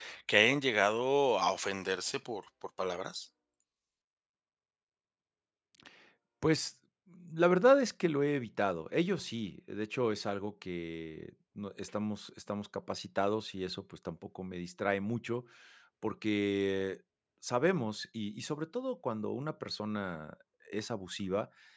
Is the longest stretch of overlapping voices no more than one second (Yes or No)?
Yes